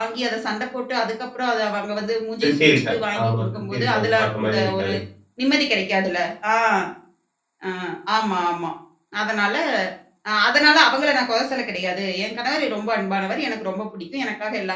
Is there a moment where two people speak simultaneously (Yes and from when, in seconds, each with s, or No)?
Yes, from 2.4 s